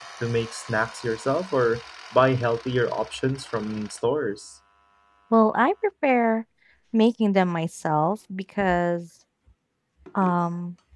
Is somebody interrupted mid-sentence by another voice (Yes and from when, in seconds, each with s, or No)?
No